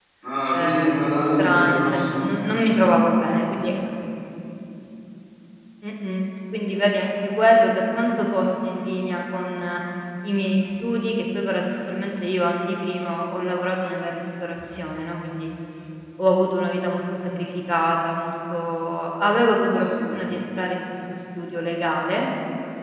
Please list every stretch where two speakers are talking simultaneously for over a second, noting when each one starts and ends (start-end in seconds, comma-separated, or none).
0.5-2.1